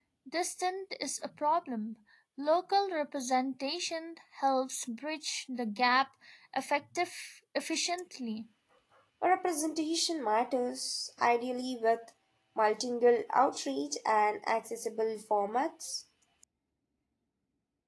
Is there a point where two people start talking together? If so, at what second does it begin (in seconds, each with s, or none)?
none